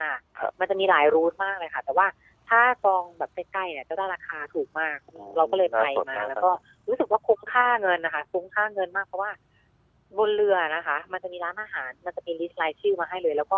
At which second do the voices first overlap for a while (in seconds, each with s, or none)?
5.2 s